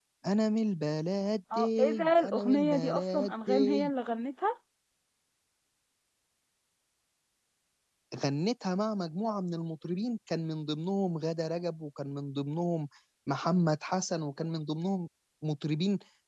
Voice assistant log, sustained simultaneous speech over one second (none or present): present